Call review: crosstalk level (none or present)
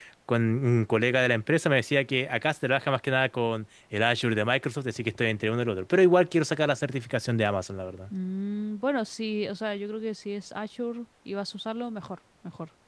none